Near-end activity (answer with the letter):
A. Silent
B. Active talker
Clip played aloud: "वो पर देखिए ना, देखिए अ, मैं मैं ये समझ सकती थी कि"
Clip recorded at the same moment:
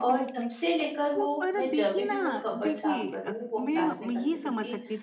B